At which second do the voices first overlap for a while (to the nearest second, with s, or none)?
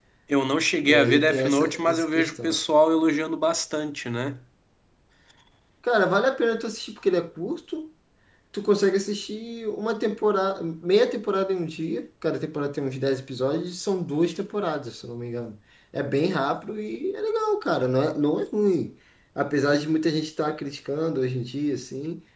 1 s